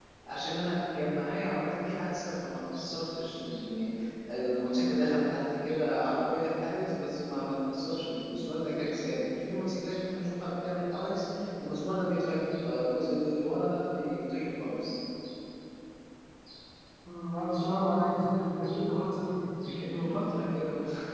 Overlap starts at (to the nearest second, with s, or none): none